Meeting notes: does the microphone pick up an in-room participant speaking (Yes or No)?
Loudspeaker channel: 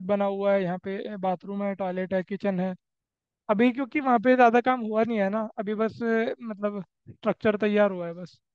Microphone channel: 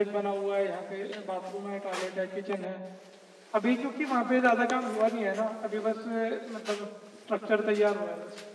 No